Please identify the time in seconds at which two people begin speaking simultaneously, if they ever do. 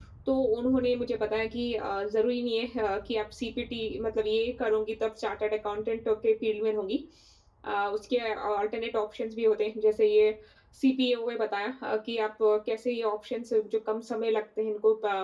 none

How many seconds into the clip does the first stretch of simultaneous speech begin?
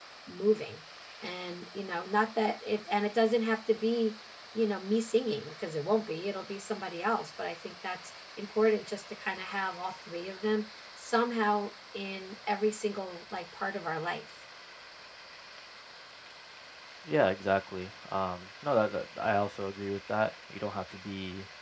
none

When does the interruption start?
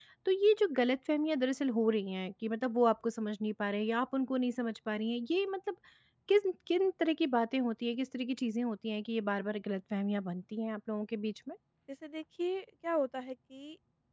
none

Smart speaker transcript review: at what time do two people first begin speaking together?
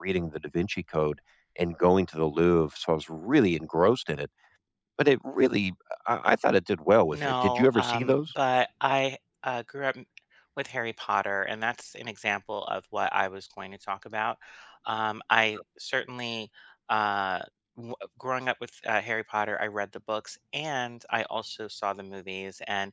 7.1 s

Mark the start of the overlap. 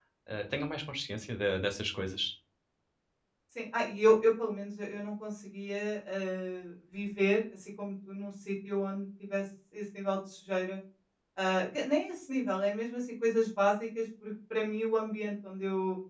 none

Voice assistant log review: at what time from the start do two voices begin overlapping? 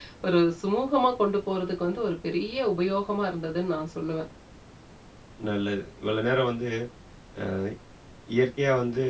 none

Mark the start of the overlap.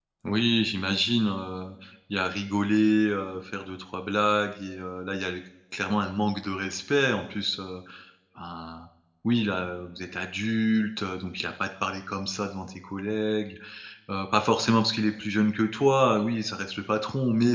none

